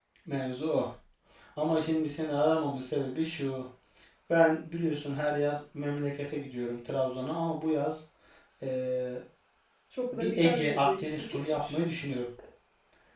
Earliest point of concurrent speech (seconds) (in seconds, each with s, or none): 10.1 s